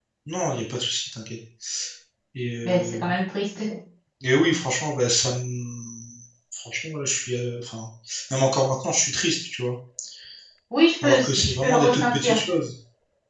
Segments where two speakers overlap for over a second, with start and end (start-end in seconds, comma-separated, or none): 11.0-12.4